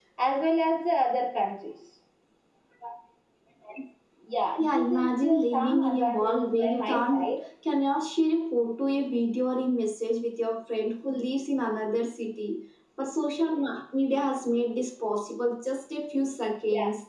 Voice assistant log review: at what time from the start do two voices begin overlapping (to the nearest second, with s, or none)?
5 s